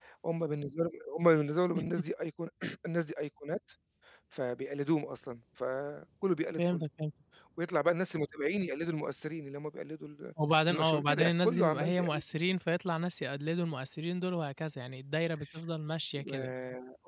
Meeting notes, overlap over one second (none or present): present